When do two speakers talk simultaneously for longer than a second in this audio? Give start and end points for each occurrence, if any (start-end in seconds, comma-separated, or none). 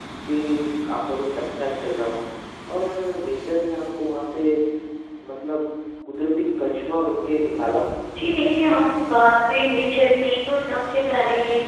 none